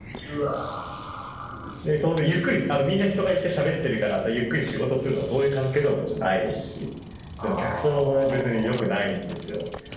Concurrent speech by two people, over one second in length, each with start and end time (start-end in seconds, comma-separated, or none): 7.4-8.8